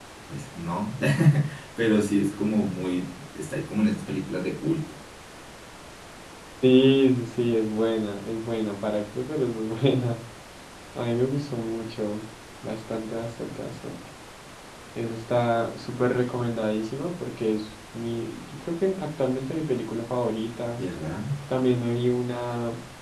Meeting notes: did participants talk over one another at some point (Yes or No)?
No